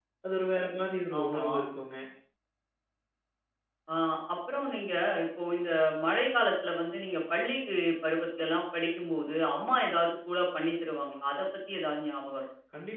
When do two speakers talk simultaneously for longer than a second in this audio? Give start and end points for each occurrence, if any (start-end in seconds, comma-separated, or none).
none